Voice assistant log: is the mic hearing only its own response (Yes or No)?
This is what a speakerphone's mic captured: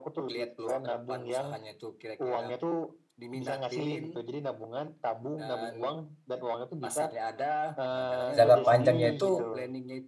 No